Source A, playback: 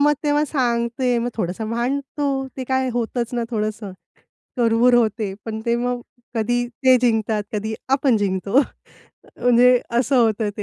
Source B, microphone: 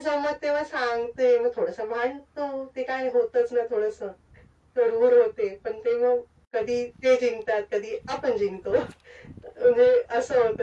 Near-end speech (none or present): none